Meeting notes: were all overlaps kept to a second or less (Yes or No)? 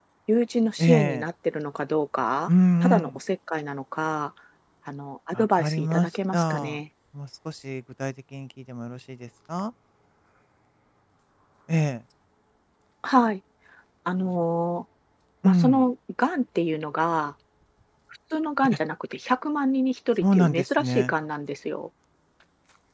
No